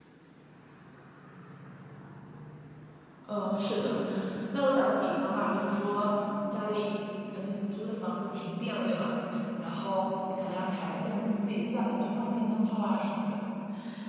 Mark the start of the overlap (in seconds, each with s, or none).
none